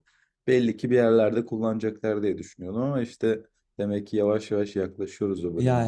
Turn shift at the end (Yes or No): Yes